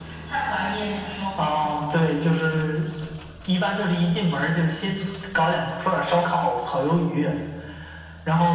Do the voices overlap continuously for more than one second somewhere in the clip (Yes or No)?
No